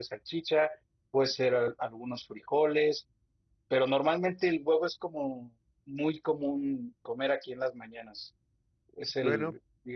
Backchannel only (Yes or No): Yes